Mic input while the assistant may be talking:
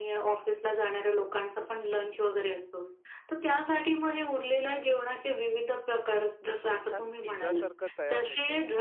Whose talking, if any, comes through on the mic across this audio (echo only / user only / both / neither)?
both